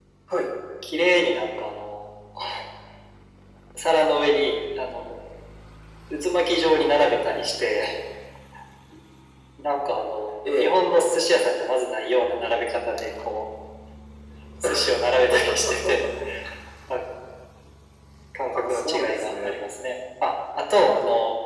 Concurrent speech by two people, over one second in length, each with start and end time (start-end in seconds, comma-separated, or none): 18.5-19.7